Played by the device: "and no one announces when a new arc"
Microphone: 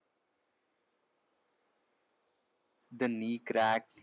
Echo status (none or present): none